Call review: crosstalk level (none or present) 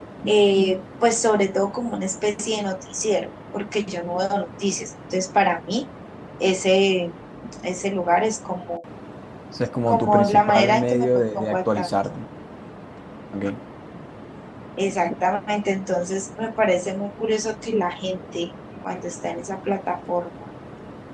present